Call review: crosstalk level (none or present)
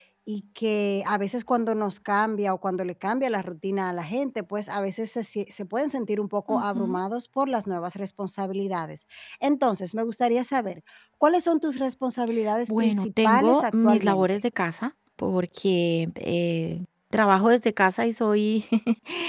present